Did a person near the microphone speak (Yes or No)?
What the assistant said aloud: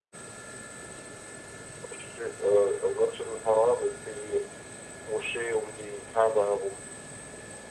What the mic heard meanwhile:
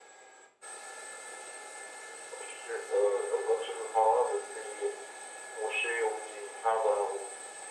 No